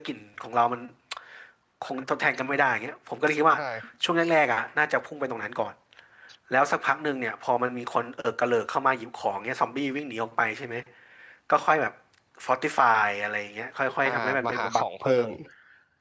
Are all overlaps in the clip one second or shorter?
No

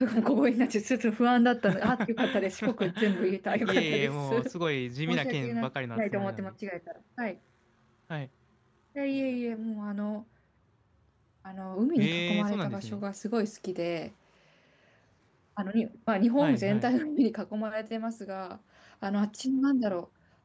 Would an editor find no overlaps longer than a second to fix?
No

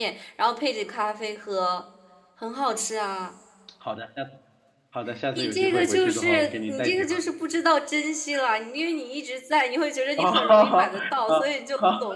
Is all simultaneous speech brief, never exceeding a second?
No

